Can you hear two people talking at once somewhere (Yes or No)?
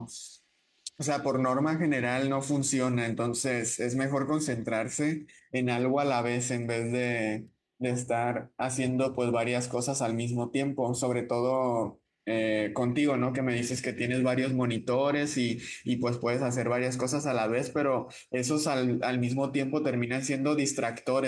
No